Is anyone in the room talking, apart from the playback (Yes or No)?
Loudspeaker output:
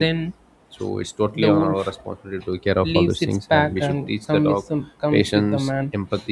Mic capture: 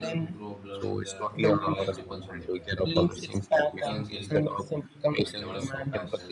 Yes